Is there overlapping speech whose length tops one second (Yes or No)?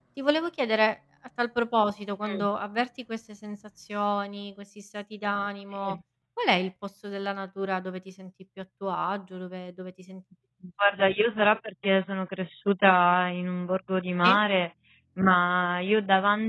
No